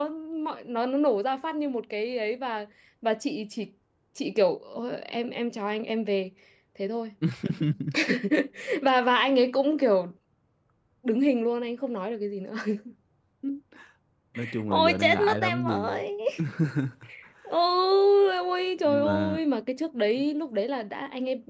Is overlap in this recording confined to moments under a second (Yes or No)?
No